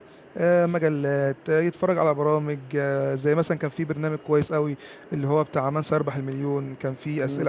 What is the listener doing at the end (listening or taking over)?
taking over